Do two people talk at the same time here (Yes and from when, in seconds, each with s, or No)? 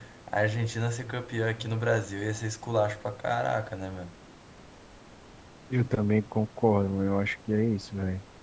No